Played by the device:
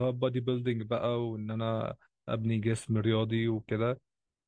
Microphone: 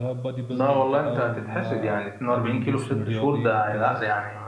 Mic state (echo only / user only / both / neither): both